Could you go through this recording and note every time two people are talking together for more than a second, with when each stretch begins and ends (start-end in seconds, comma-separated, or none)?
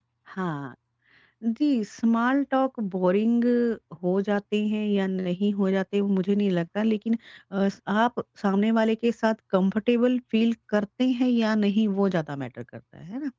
none